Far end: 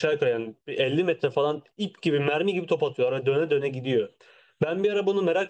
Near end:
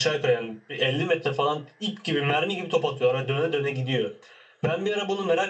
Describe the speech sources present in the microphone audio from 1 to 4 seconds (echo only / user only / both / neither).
echo only